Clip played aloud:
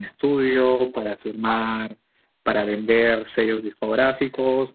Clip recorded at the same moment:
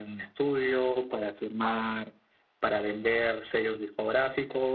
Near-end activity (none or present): none